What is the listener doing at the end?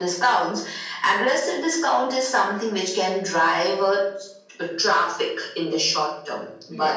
listening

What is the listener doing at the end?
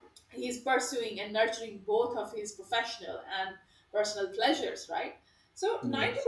listening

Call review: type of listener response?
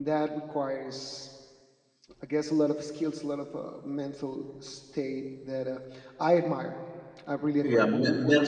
taking over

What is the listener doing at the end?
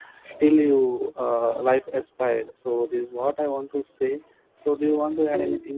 taking over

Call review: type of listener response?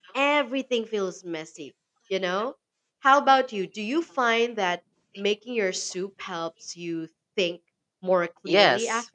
taking over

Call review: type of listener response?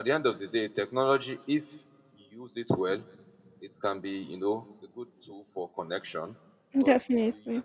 listening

